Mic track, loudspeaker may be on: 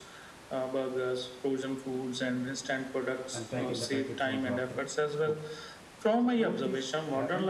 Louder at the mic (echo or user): echo